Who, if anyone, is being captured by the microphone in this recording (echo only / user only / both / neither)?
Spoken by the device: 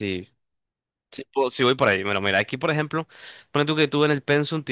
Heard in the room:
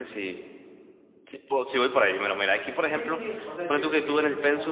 both